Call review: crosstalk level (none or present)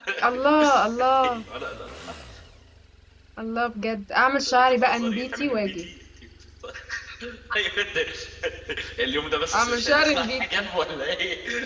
present